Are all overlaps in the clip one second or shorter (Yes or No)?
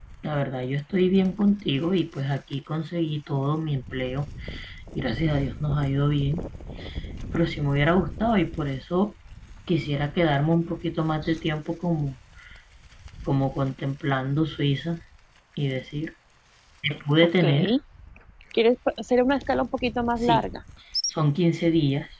Yes